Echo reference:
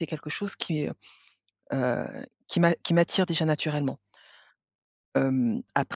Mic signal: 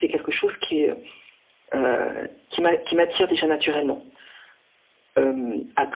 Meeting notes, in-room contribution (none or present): none